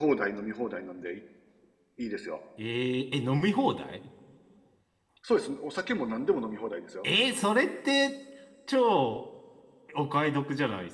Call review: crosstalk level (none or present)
none